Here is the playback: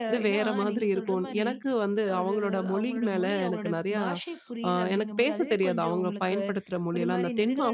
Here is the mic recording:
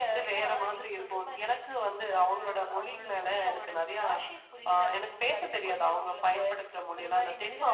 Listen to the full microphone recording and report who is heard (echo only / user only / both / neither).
echo only